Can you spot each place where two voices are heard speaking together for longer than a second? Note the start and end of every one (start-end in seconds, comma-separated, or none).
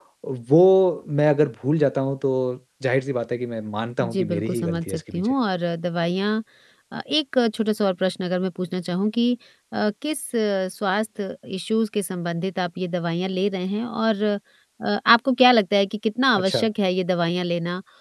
4.0-5.3